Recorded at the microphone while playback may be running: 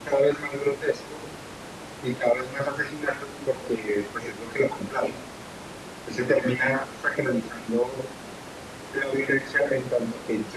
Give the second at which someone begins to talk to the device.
none

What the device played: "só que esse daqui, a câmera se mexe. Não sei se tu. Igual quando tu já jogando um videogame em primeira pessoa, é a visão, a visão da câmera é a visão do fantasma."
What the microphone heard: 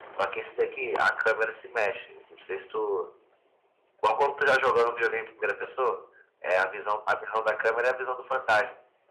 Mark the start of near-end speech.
none

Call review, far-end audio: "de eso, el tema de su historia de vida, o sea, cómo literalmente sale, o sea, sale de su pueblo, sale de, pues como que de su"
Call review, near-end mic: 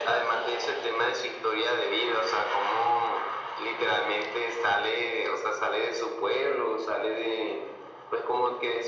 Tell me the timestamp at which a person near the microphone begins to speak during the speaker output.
none

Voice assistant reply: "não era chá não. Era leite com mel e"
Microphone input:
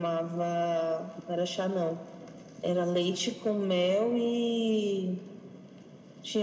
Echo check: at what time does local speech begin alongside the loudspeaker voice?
none

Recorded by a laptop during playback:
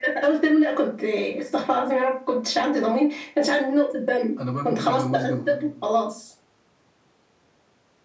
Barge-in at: 4.4 s

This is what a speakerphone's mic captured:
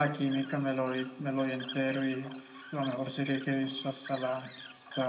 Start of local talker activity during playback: none

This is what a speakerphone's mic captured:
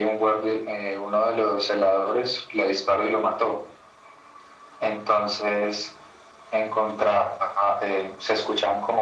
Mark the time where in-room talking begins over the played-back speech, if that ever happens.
none

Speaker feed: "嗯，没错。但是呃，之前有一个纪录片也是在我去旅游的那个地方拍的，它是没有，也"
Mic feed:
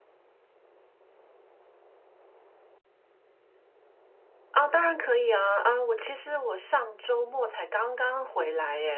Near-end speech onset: 4.5 s

